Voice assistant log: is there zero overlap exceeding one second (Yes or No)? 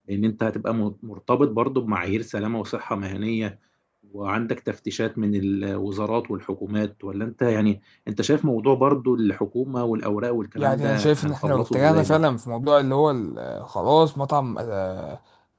No